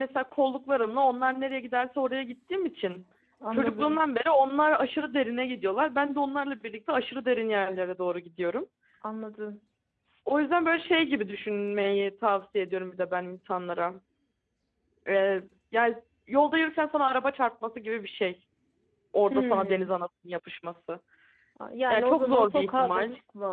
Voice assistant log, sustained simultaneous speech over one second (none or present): present